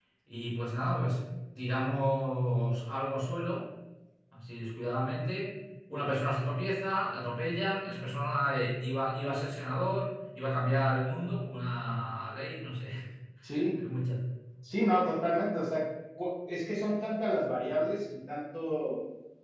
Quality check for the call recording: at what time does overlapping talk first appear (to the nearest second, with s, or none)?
none